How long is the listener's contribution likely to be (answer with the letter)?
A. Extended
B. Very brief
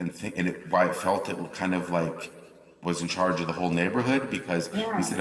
B